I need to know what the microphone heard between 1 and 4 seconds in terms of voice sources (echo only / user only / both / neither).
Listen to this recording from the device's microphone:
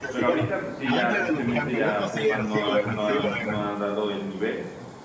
both